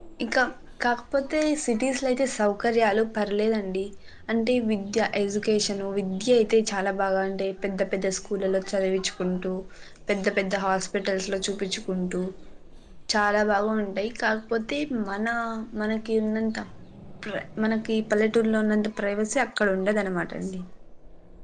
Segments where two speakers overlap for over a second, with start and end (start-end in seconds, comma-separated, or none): none